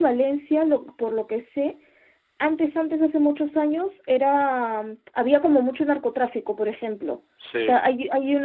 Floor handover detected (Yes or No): No